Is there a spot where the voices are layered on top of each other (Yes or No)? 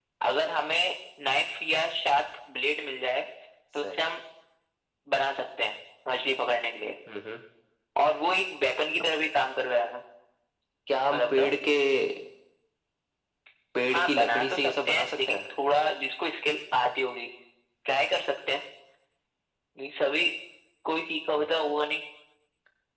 Yes